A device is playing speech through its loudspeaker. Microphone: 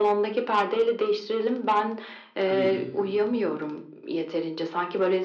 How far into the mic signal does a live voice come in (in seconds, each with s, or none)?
2.4 s